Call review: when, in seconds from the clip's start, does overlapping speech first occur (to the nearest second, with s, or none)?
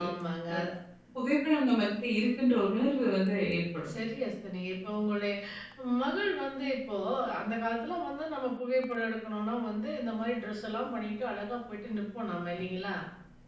none